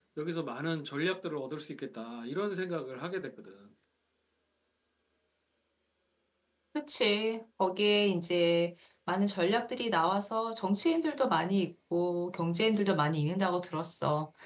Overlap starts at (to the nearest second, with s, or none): none